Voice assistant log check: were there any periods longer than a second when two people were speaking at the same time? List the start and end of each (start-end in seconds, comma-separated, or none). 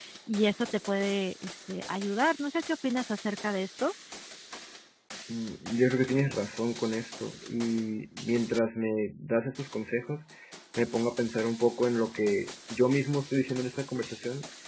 none